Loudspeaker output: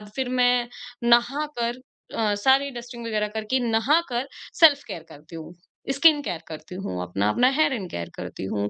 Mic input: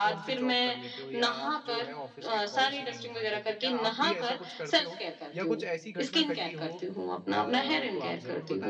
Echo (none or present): present